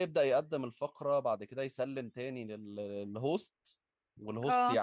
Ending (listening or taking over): listening